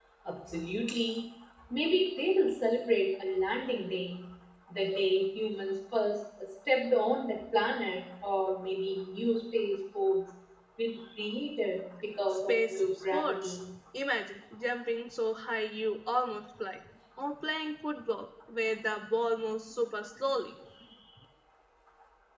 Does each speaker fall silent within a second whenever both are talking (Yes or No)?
No